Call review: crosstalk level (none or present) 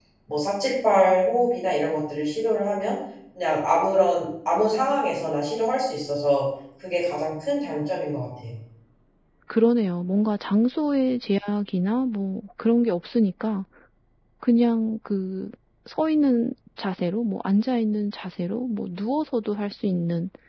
none